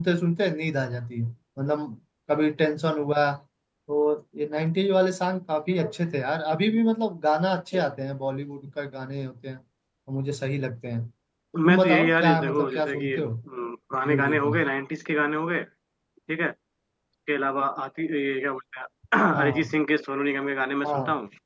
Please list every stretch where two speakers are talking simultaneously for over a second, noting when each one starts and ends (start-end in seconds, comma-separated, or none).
11.7-13.3